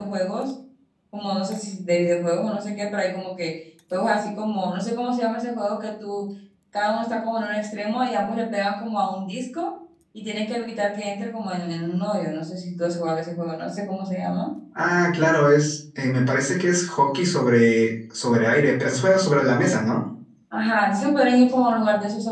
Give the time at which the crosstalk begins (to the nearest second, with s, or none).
none